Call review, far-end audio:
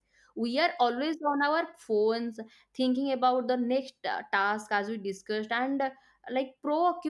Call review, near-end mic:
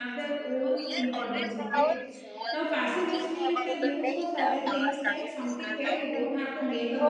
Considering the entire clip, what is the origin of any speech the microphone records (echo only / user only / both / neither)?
both